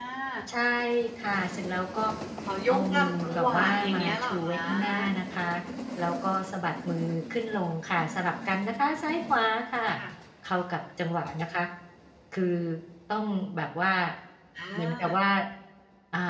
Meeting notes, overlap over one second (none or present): present